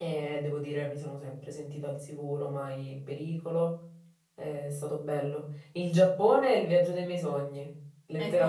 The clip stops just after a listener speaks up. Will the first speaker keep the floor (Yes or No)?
No